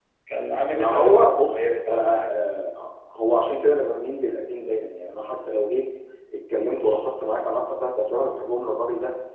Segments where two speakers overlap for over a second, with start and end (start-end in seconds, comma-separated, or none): 0.7-2.3